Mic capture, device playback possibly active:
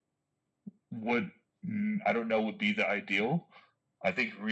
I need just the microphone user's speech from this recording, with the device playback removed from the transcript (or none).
none